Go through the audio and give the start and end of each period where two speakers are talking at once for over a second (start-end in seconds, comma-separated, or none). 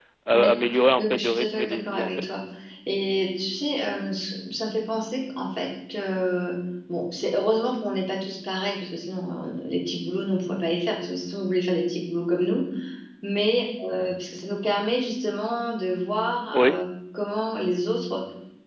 1.0-2.3